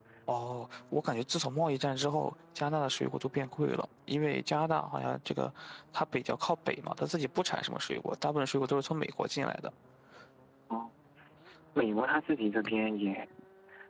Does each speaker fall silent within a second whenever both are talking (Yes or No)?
Yes